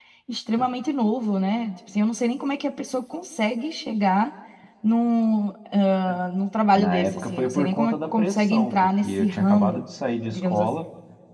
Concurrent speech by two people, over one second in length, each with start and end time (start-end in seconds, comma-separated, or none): 6.7-9.8